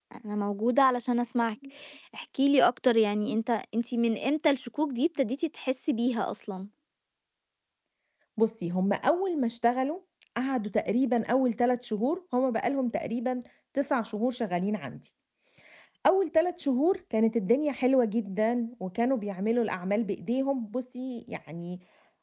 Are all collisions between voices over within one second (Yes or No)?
Yes